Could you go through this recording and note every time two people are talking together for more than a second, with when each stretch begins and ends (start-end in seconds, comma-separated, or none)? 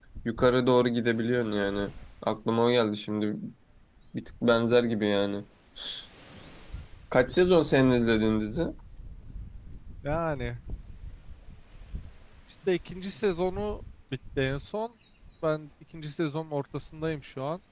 none